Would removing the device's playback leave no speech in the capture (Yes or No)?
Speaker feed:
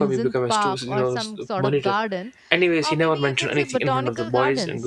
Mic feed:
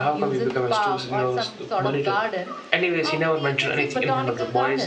Yes